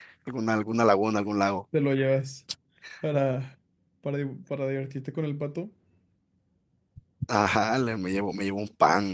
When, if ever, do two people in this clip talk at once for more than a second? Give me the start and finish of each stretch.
none

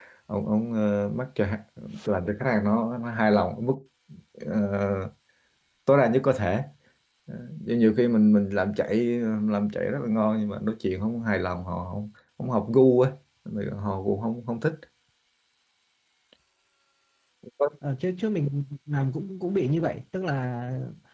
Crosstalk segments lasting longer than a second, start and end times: none

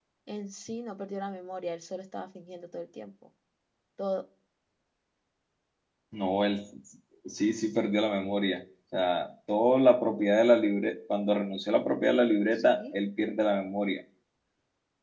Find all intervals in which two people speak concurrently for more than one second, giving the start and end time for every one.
none

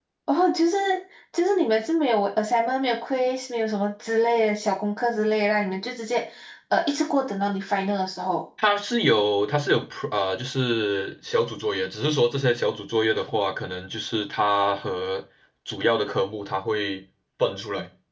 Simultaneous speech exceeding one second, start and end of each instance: none

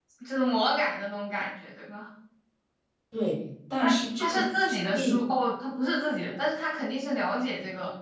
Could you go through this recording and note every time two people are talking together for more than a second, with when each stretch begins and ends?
3.8-5.2

